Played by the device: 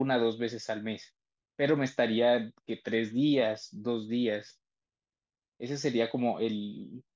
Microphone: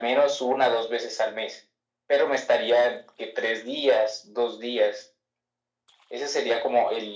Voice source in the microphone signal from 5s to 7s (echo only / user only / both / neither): echo only